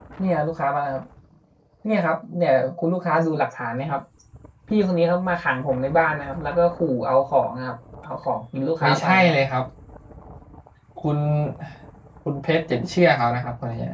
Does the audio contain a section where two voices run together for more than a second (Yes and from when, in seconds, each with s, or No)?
No